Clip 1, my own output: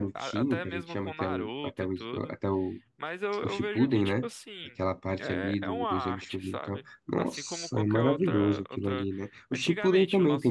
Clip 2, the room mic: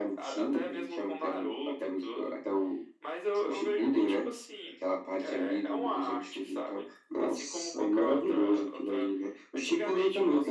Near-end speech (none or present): none